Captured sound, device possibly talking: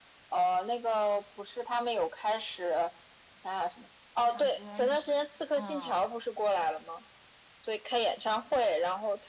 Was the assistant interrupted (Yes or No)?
Yes